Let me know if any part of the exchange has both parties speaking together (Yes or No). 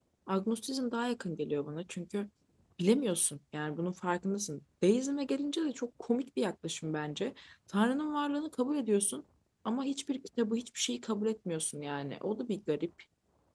No